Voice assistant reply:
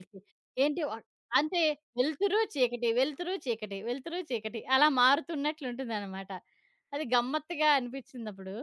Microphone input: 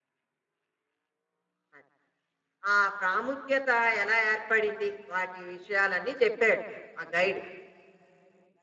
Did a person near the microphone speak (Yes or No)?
Yes